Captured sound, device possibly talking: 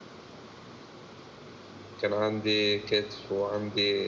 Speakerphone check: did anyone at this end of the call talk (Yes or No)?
Yes